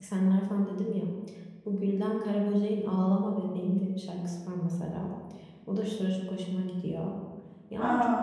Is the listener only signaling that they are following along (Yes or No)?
Yes